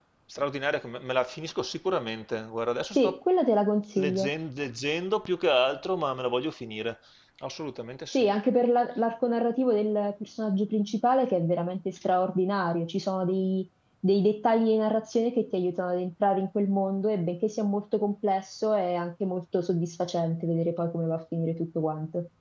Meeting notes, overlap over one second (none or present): none